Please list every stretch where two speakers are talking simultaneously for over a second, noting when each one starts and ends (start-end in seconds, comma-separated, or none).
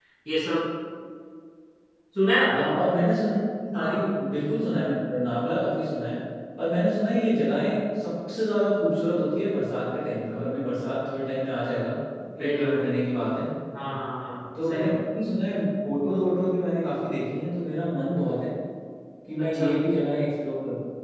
none